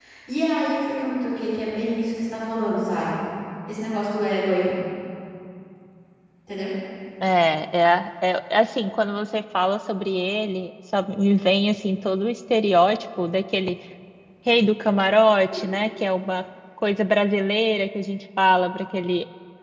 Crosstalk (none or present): none